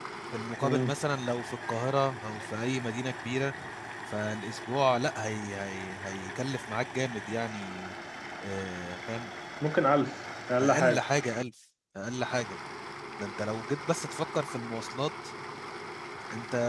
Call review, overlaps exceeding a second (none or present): none